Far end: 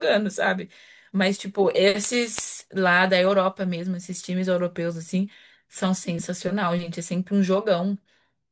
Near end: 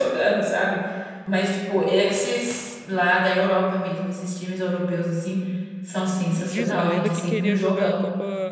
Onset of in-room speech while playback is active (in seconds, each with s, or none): 6.4 s